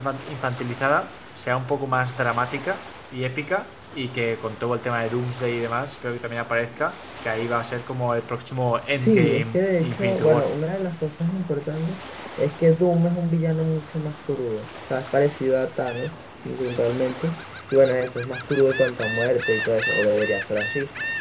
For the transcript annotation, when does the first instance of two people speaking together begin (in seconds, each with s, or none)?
9.0 s